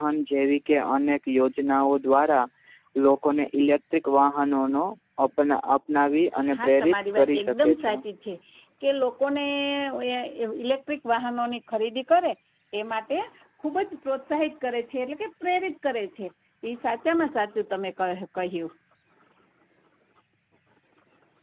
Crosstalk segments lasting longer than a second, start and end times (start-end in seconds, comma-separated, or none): 6.5-8.0